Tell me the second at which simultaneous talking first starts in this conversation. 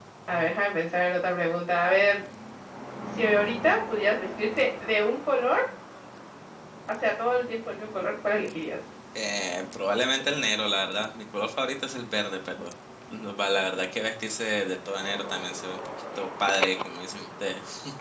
none

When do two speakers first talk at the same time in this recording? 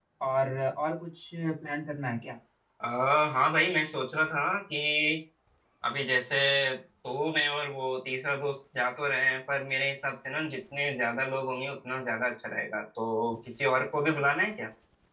none

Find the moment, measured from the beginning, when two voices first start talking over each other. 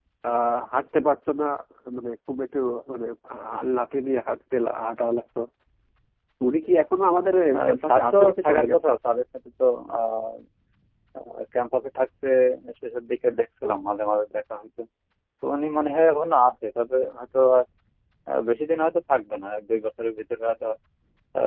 7.5 s

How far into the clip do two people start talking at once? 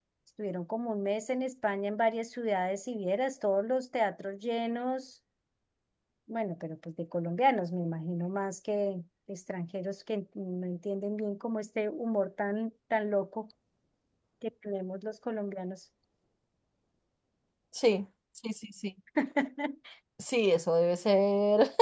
none

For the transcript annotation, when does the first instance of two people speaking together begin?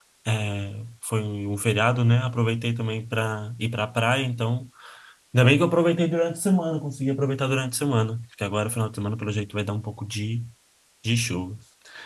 none

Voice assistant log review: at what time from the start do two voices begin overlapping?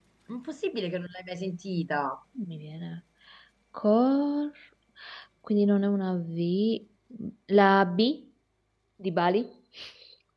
none

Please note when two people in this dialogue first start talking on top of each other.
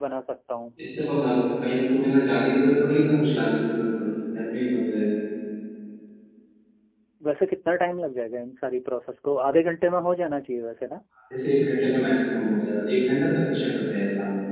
none

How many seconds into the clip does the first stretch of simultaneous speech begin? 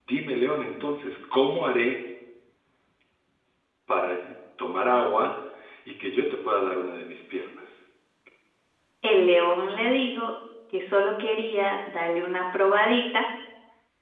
none

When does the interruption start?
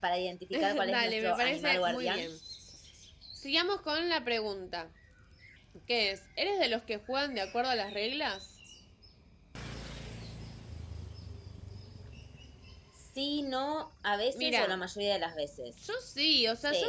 0.5 s

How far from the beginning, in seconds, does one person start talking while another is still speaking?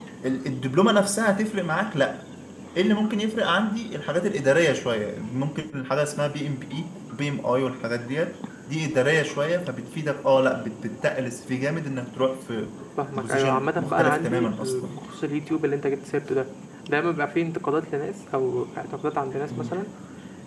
13.2 s

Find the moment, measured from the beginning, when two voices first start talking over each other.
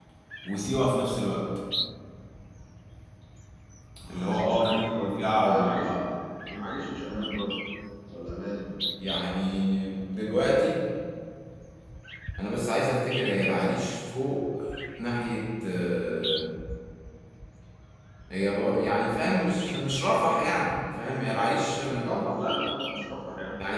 4.1 s

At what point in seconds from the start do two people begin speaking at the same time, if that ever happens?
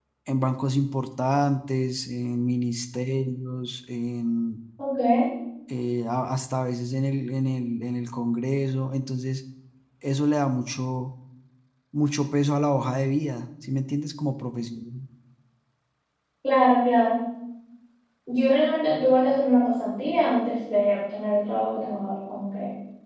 none

